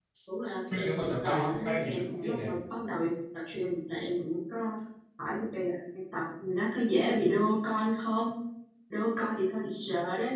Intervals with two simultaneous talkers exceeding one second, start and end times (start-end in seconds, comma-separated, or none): 0.7-2.6